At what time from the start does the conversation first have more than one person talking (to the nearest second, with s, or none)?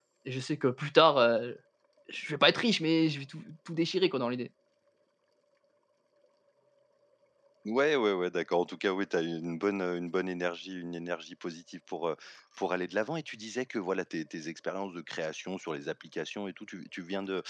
none